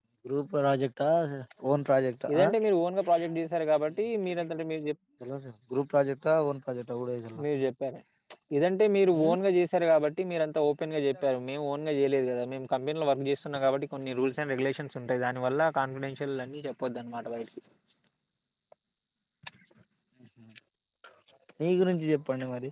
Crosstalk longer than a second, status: none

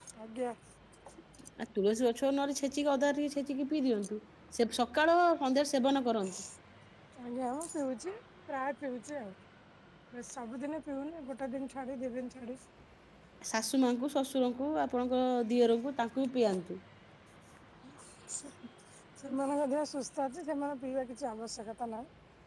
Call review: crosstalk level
none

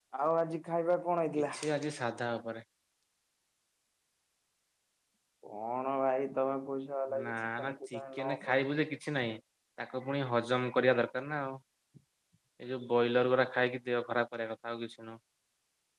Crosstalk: present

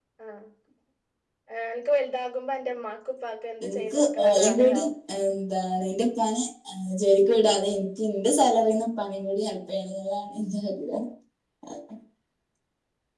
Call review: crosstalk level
present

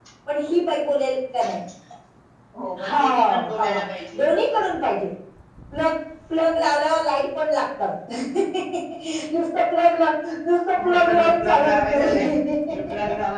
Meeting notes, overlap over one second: present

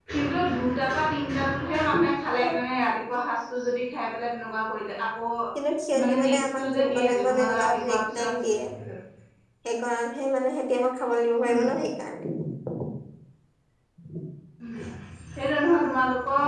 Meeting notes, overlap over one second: present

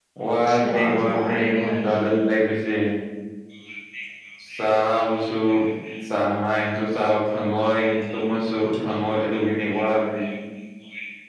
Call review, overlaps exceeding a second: present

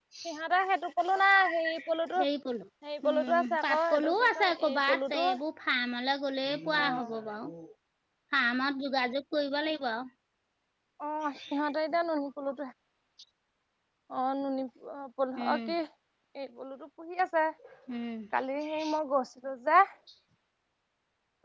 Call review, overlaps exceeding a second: present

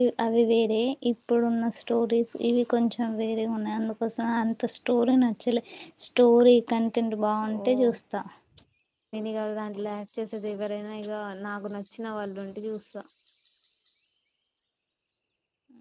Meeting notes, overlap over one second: none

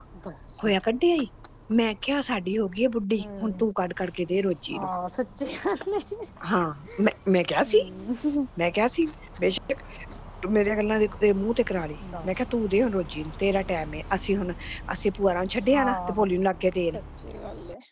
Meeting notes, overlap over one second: none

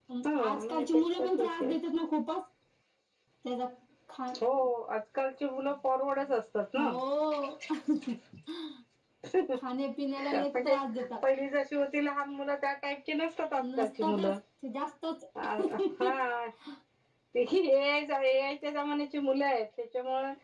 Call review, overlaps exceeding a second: present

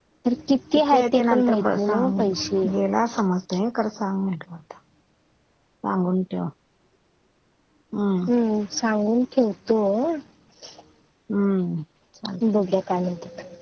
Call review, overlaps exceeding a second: present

